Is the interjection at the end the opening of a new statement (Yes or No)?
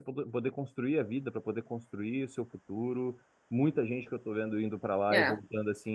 No